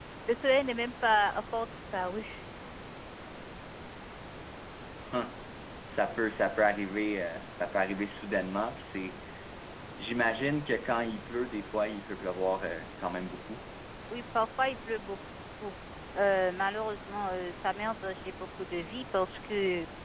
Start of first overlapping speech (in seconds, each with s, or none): none